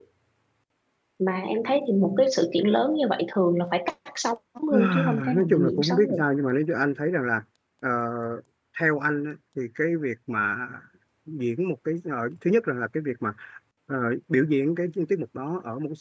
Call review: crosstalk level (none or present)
present